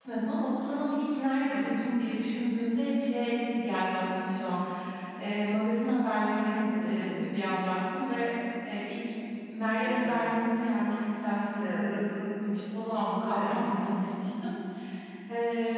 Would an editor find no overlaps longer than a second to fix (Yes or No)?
Yes